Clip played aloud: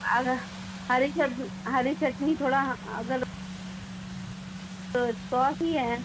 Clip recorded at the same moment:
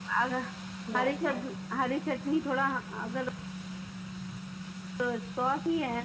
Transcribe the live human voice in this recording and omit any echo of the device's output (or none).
ਲਸਣ